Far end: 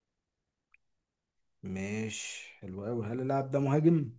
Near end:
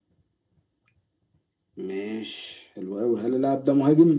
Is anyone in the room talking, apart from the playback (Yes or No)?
No